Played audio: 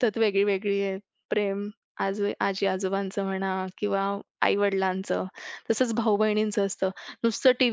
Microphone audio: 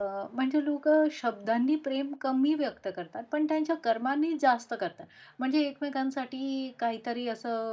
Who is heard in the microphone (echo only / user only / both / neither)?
user only